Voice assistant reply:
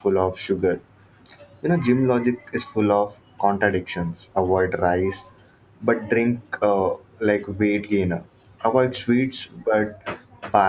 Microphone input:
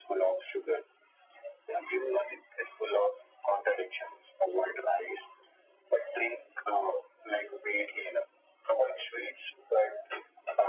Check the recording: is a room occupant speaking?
No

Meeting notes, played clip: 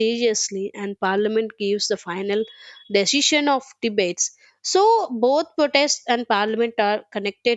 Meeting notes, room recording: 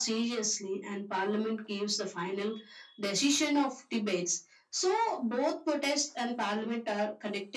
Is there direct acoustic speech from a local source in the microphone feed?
No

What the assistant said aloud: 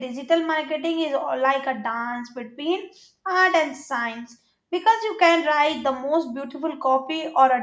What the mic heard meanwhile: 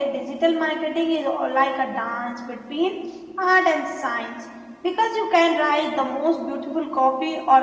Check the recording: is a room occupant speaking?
No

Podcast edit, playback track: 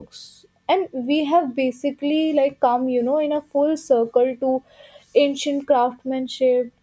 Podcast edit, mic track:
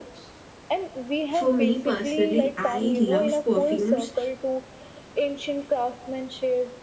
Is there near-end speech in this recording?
Yes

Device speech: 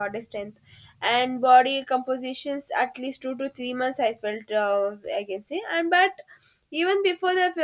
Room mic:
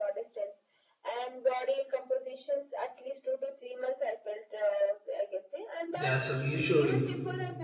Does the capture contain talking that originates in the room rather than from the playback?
Yes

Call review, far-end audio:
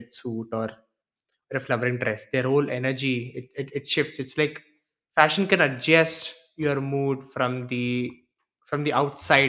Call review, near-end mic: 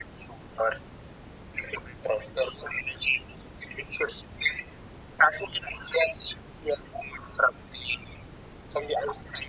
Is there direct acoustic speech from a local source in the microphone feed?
No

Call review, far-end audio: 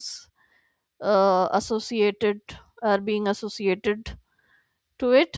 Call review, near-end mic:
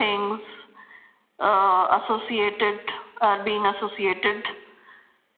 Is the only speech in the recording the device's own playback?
Yes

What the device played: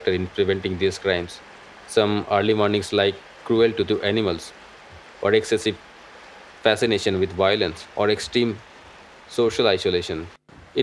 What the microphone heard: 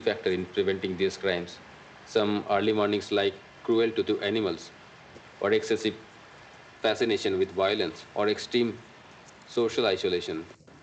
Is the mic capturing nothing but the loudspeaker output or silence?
Yes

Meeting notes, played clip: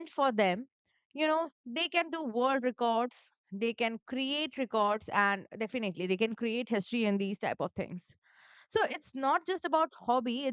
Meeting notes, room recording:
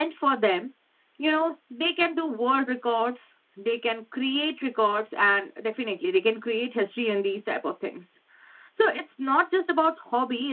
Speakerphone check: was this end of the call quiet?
Yes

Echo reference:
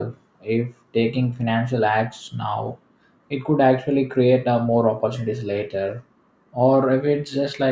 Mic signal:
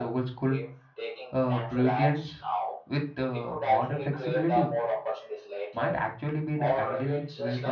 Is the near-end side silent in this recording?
No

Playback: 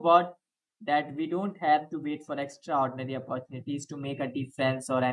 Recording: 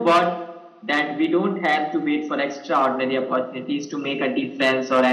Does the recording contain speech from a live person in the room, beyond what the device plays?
No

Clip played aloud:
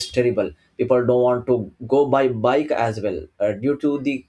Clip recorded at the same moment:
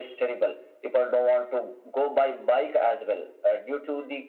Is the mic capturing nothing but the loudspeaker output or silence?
Yes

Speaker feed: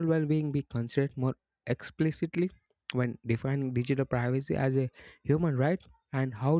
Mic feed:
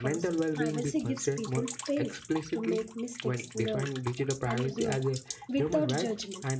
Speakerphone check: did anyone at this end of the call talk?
Yes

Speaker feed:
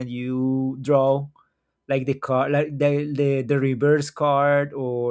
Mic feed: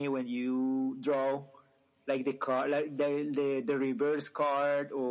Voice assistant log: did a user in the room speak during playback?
No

